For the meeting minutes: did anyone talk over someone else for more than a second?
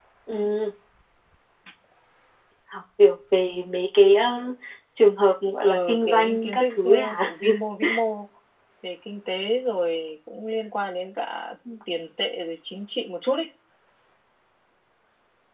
Yes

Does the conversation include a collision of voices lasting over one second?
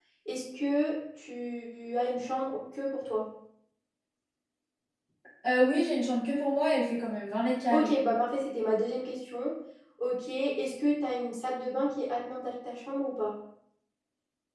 No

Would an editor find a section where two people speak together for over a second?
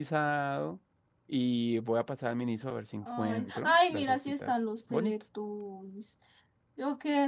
Yes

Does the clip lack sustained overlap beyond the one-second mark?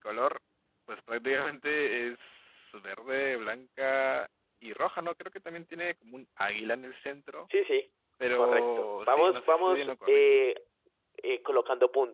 No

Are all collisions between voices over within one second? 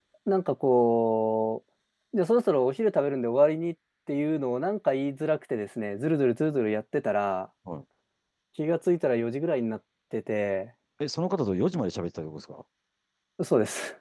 Yes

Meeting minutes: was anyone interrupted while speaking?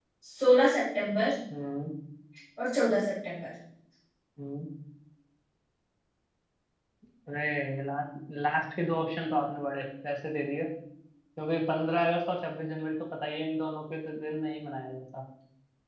No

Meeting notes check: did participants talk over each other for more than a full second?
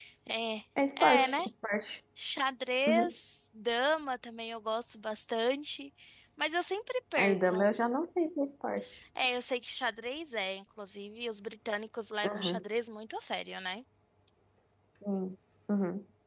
No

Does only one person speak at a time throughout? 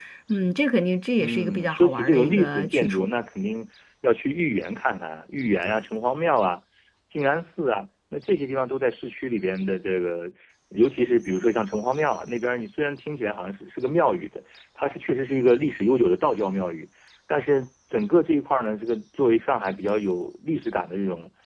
No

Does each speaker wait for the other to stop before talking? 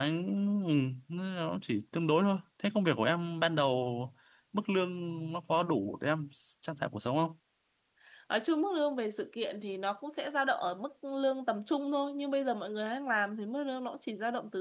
Yes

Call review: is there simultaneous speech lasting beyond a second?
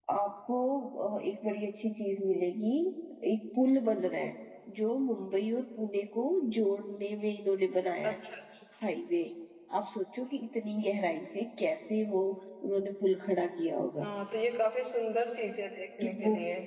No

